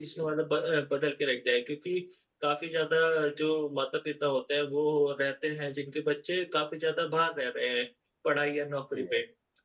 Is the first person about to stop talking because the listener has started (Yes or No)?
No